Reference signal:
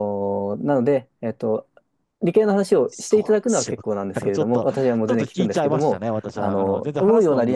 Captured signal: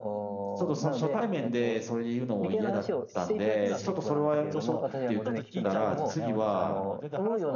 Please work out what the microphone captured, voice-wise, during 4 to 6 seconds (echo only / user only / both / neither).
both